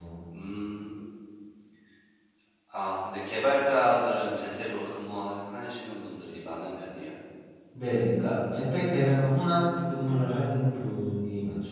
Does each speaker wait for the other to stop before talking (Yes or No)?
Yes